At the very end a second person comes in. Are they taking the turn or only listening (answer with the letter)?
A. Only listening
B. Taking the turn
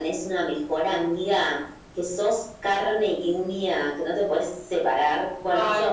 A